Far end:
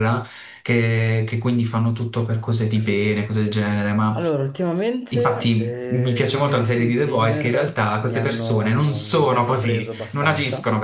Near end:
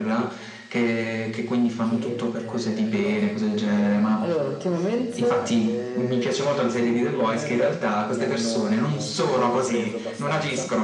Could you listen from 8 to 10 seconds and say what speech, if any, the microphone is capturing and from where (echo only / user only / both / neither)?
echo only